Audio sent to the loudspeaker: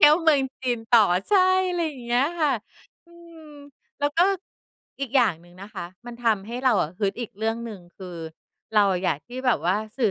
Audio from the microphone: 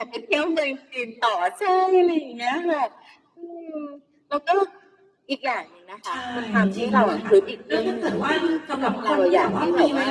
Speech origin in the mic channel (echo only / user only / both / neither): both